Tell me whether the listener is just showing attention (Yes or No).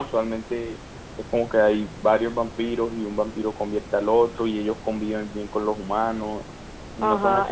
No